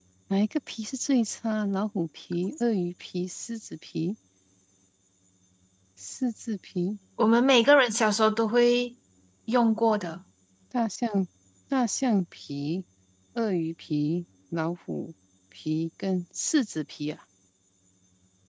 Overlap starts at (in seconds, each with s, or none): none